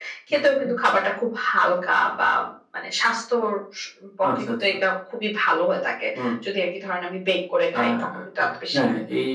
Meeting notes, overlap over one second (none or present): none